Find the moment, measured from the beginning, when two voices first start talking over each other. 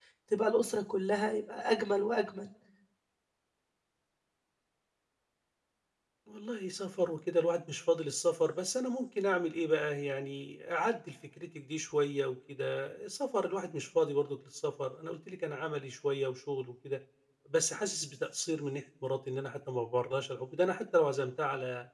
none

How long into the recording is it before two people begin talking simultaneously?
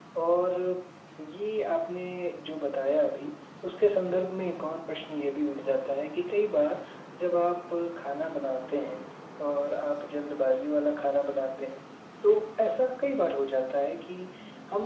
none

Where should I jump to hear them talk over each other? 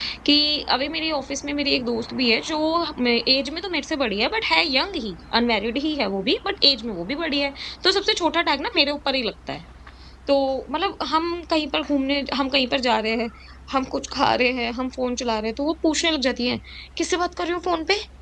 none

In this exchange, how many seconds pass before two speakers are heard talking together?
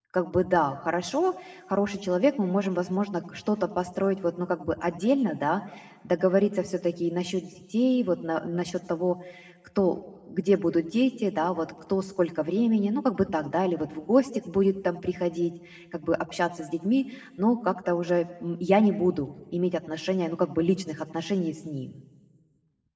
none

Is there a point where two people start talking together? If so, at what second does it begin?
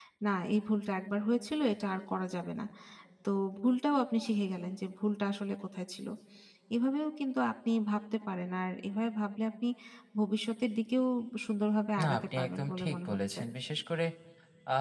12.0 s

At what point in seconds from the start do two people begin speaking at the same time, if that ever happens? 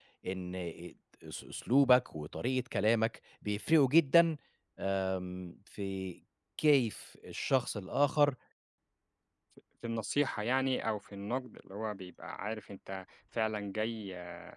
none

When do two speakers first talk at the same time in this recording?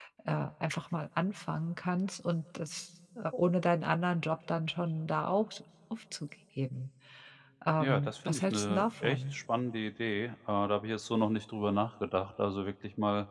7.8 s

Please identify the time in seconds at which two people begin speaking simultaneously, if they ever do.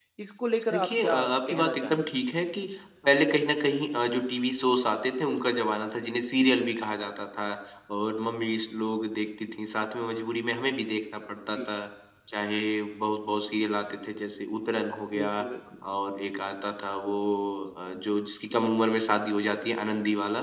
0.7 s

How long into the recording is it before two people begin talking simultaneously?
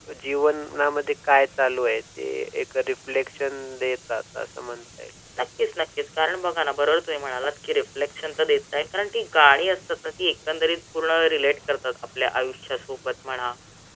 none

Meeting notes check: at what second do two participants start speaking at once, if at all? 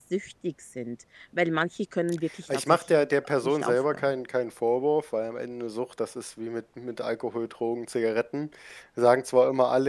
2.5 s

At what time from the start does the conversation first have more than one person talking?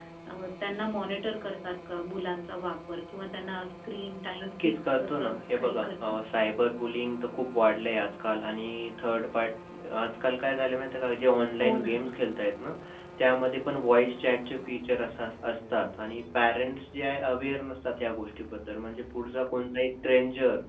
4.6 s

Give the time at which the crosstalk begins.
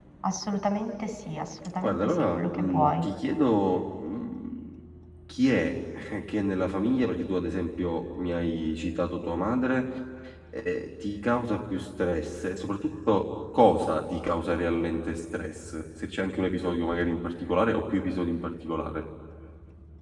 1.8 s

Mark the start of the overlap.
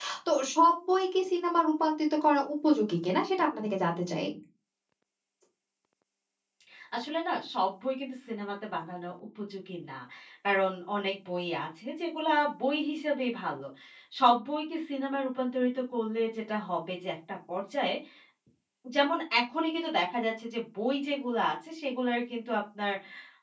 none

